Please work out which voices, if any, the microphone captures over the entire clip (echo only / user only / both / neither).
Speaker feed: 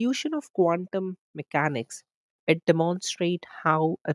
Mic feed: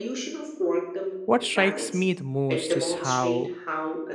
both